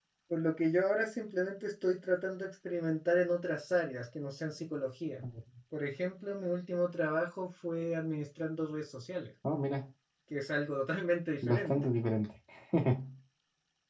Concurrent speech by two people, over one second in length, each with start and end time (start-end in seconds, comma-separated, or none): none